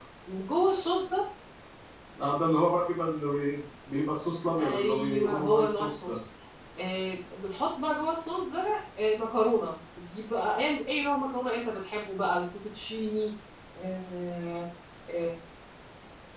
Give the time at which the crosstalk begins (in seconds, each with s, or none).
4.6 s